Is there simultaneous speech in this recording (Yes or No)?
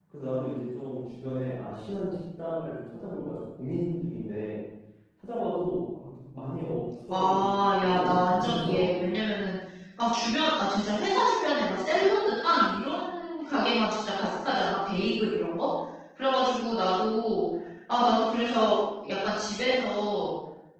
Yes